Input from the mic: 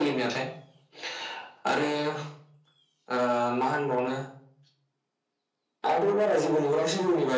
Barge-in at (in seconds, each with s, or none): none